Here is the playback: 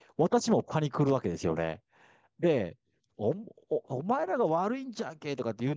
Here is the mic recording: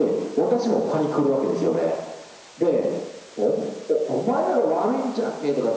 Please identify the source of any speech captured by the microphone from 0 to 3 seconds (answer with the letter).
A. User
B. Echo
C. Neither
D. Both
B